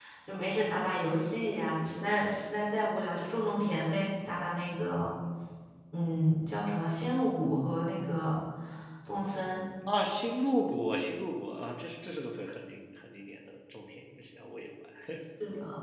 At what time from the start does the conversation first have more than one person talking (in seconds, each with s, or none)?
none